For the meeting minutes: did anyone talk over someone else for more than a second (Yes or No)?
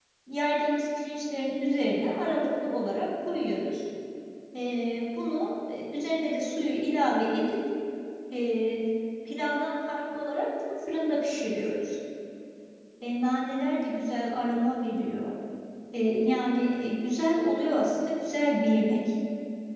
No